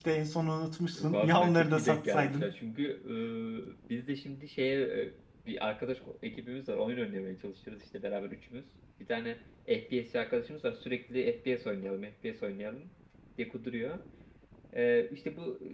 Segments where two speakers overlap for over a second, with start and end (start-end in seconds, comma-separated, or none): 0.9-2.5